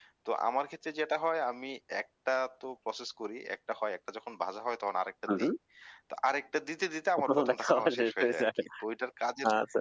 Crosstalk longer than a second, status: present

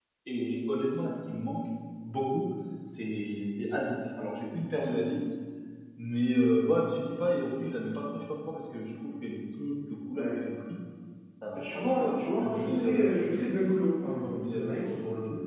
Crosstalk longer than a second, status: present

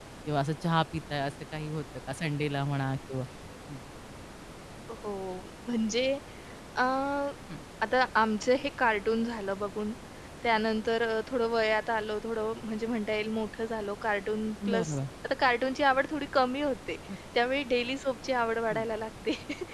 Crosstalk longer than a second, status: none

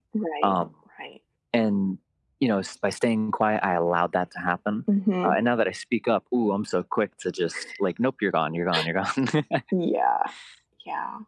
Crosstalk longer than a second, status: none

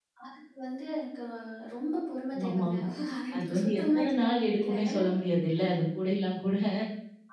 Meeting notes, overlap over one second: present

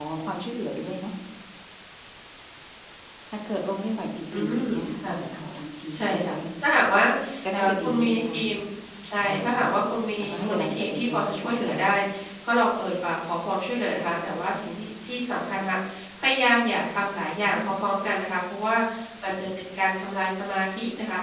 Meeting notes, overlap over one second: present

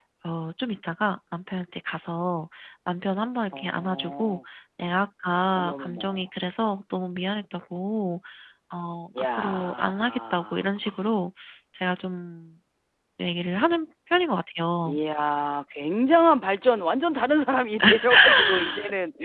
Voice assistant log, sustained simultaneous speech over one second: present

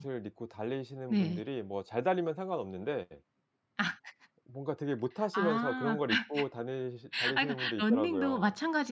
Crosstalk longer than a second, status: present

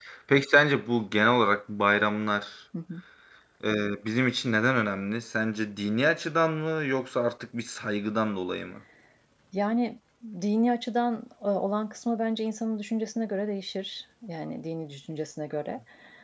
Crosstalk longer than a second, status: none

